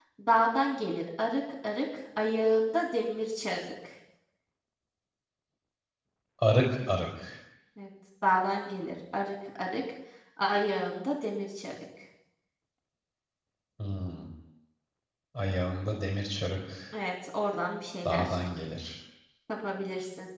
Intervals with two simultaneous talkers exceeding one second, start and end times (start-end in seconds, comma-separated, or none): none